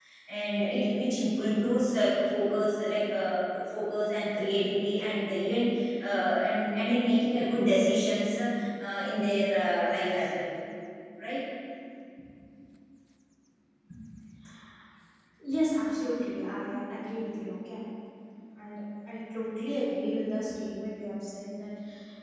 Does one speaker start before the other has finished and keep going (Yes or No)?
No